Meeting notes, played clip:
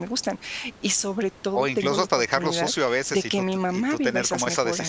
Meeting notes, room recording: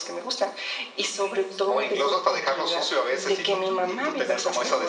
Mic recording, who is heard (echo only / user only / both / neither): both